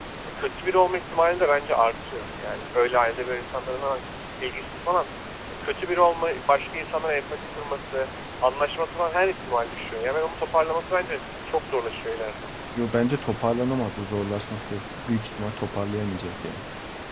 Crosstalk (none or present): none